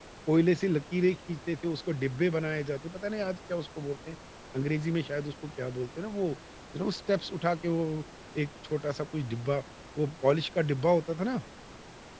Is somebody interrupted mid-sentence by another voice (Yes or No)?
No